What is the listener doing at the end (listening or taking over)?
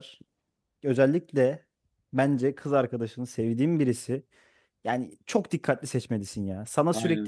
listening